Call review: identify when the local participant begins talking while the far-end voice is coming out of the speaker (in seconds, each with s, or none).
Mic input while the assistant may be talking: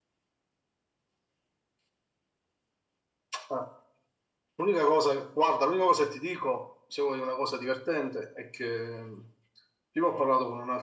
none